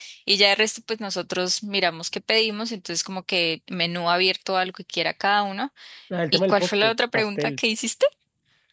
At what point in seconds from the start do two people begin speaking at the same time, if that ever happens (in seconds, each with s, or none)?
6.3 s